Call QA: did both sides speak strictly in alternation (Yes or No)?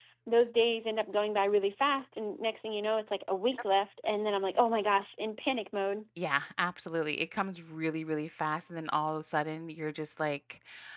Yes